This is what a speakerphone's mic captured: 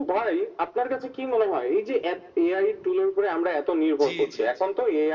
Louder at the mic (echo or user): echo